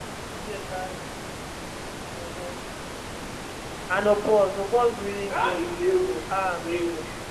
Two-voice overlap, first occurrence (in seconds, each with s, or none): 5.3 s